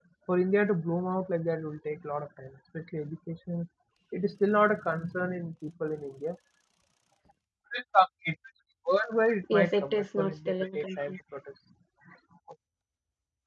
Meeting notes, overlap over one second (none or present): present